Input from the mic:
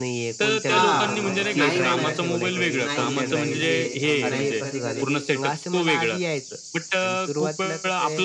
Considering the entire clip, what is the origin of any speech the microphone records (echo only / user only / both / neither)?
both